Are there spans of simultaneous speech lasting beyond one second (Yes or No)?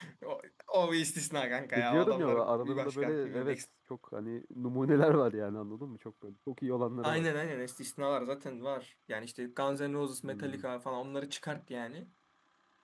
Yes